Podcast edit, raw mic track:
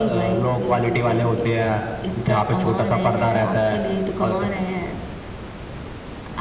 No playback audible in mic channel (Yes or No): No